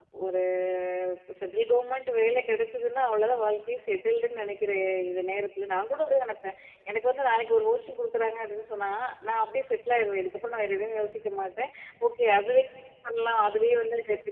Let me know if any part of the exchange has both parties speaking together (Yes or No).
No